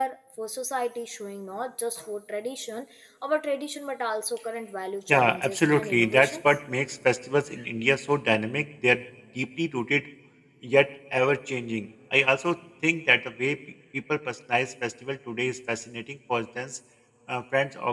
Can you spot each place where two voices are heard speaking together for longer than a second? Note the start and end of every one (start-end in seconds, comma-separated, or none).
5.1-6.6